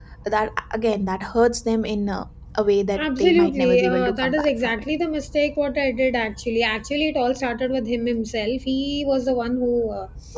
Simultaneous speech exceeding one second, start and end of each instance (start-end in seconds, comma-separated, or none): 3.0-4.7